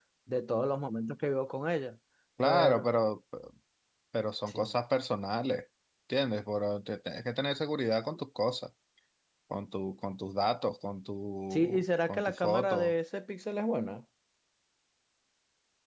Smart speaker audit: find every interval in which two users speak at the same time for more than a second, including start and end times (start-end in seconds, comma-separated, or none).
11.5-12.9